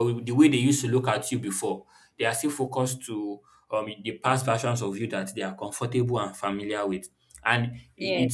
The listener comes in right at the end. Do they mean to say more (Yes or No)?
No